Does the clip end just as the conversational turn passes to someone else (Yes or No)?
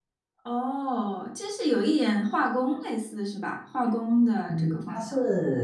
Yes